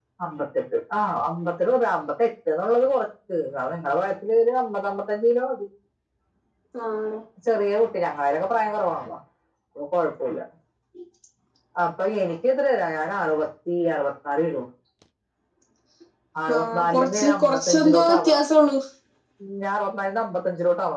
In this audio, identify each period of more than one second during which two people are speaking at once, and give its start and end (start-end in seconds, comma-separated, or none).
16.6-18.4